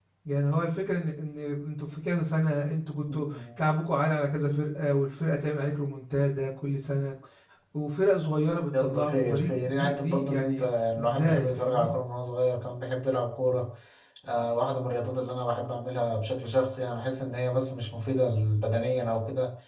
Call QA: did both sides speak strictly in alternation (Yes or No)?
No